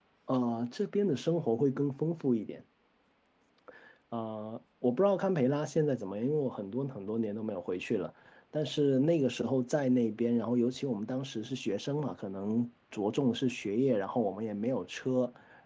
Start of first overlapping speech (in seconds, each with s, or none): none